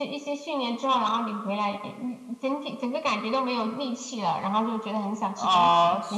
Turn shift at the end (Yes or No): Yes